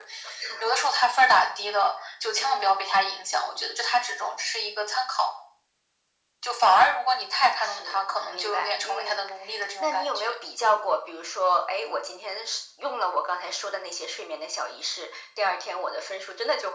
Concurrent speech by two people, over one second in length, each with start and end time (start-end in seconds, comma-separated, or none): 7.6-9.2